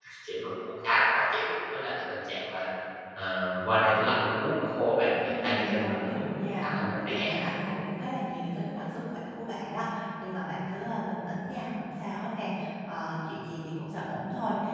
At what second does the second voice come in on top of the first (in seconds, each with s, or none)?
5.2 s